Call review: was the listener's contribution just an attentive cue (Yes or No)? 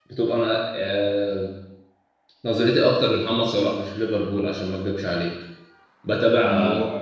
Yes